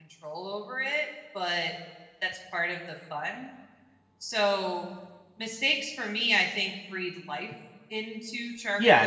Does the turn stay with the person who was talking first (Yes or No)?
No